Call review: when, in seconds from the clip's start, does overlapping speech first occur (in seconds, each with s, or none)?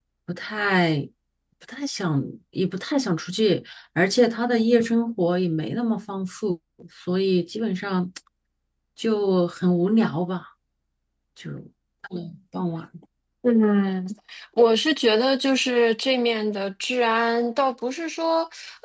none